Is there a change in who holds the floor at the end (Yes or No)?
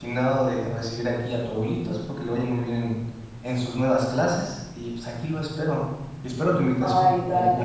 Yes